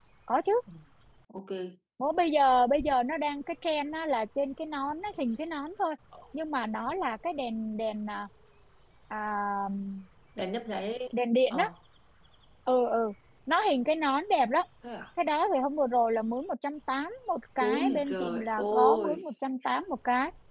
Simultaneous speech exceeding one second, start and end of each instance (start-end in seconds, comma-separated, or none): 17.7-19.1